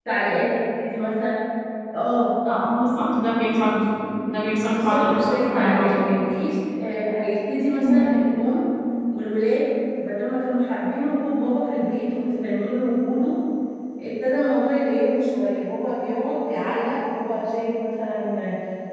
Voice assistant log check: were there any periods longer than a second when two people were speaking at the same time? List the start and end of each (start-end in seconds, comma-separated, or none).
4.6-6.3